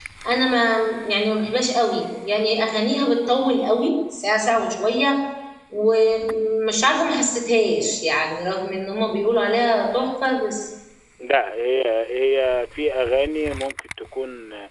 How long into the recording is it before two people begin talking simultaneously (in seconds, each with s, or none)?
none